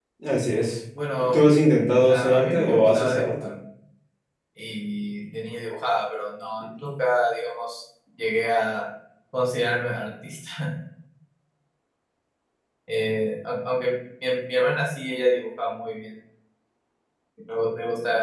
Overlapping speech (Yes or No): Yes